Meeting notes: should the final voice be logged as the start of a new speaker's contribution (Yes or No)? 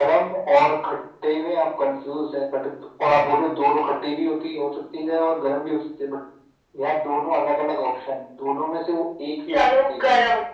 Yes